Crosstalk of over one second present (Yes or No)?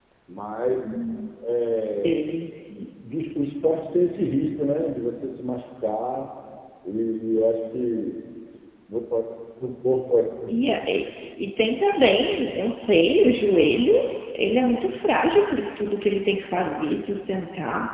No